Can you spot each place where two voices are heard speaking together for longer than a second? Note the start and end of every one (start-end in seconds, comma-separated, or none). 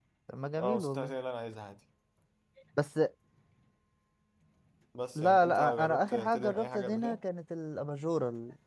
5.2-7.2